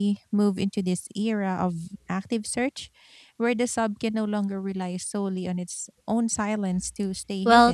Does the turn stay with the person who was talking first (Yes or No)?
No